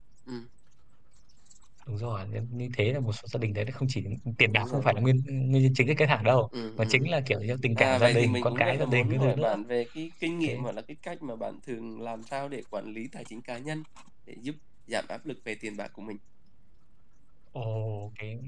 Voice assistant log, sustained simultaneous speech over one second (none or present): present